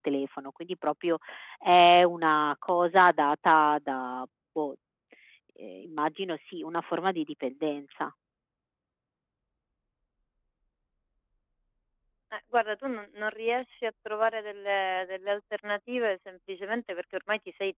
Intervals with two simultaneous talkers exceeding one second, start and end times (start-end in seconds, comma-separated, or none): none